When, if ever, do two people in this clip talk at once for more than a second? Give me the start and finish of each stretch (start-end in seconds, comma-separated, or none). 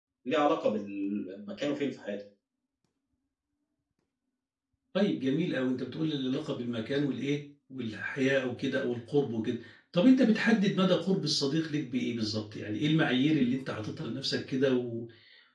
none